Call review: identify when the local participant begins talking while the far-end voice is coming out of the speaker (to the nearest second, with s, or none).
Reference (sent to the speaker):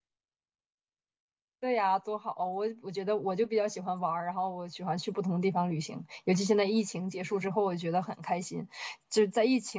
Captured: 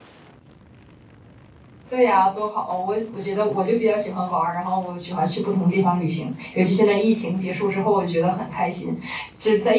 none